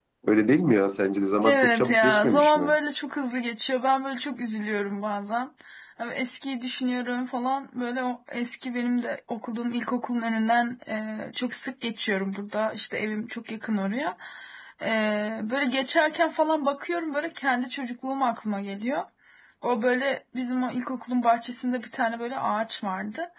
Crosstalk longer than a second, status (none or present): present